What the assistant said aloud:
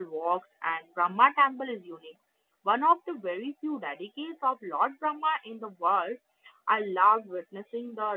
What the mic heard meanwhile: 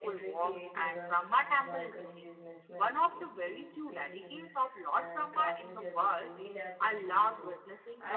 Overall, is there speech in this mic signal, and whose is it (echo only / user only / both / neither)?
both